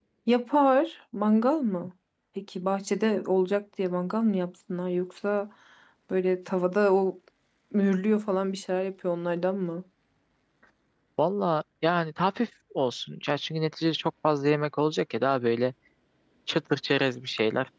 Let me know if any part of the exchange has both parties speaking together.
No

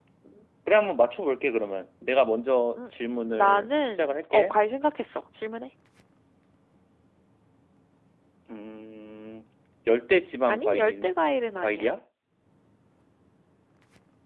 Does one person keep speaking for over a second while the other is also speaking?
Yes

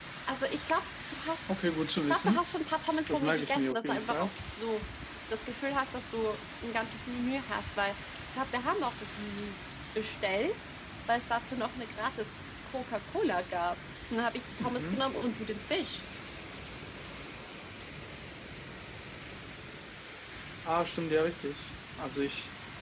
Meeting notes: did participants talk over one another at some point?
Yes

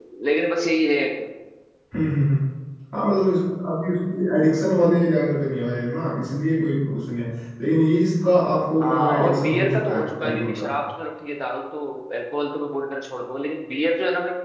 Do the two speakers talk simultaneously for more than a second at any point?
Yes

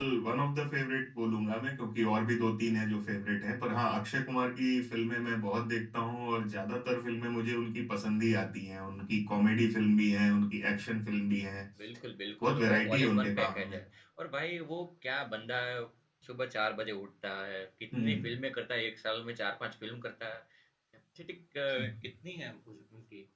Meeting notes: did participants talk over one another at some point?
Yes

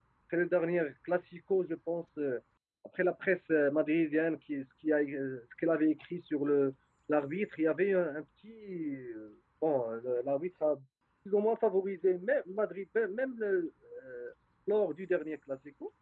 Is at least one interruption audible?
No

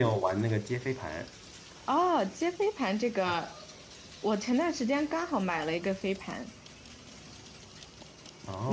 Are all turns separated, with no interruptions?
Yes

